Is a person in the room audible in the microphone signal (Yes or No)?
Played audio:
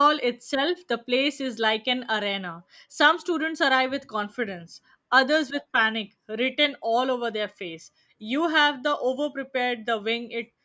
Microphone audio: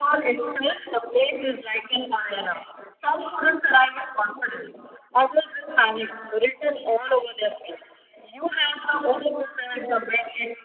No